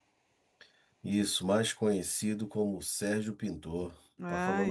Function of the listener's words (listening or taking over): taking over